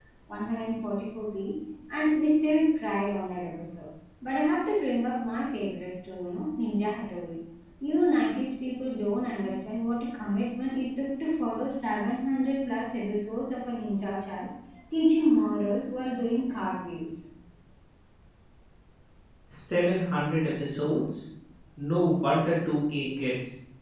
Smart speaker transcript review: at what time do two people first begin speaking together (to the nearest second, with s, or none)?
none